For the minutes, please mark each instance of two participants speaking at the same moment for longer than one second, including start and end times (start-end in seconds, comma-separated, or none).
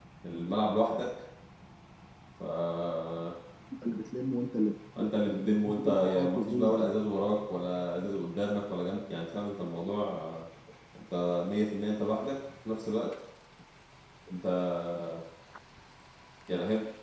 5.0-6.9